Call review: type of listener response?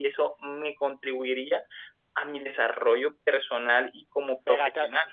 taking over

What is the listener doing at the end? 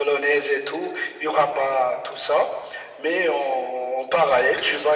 listening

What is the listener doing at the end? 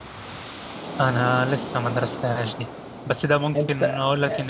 listening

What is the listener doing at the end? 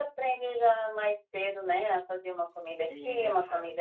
listening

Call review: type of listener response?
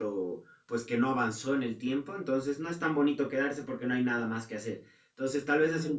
listening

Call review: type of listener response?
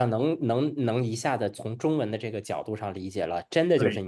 listening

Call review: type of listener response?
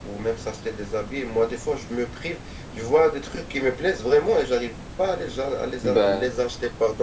listening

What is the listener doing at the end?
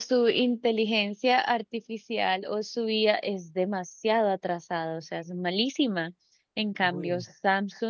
listening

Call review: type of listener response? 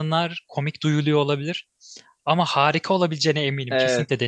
taking over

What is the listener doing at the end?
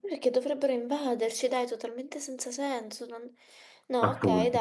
listening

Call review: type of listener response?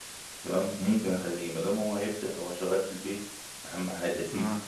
listening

